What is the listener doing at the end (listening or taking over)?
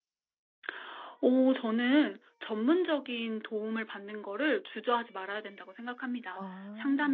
listening